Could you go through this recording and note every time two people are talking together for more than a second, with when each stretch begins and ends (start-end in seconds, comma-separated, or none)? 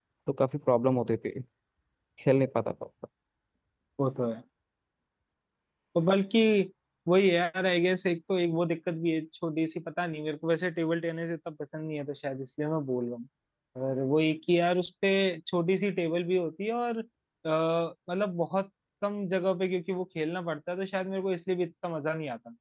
none